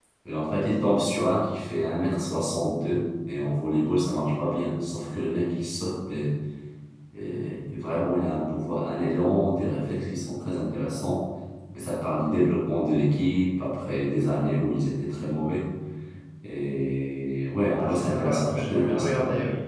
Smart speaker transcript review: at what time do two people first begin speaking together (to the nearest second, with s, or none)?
18 s